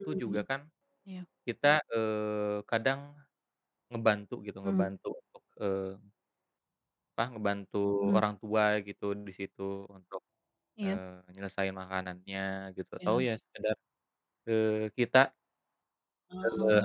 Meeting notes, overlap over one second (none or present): none